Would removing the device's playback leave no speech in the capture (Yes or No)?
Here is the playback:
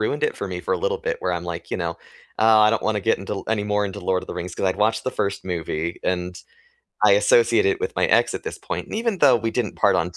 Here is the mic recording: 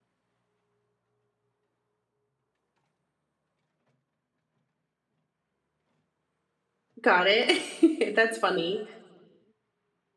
No